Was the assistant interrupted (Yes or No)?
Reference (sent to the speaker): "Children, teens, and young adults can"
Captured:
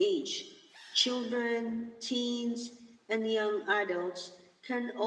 No